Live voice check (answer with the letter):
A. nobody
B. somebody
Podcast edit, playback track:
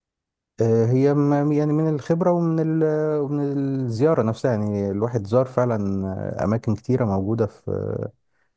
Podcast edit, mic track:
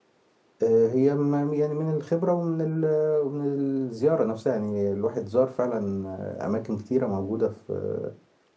A